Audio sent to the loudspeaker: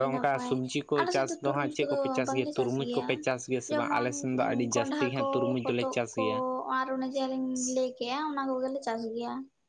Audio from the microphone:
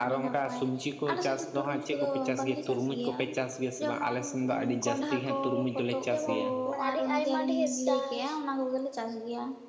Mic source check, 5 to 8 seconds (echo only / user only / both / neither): both